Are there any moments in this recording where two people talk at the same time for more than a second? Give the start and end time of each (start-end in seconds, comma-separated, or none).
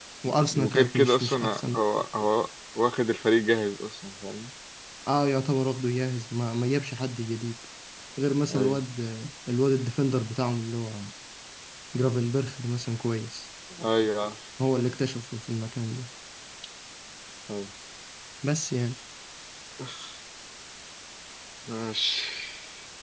0.5-1.8